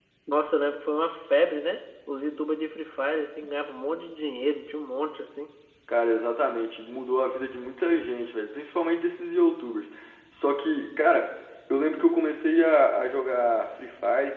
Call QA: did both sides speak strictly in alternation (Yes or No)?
Yes